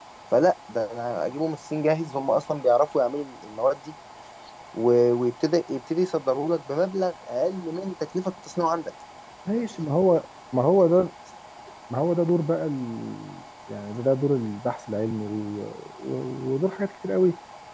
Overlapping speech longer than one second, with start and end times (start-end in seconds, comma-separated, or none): none